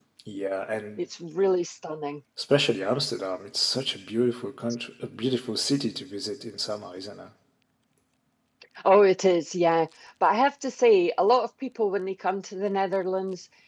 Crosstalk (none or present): none